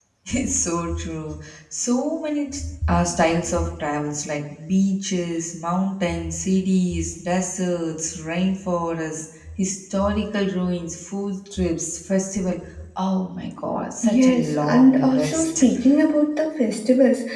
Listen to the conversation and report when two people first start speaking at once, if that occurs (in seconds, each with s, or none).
14.0 s